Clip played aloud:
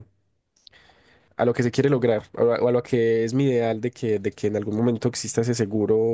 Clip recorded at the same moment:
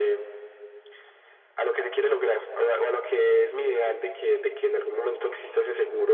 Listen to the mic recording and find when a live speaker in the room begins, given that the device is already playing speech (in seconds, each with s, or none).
none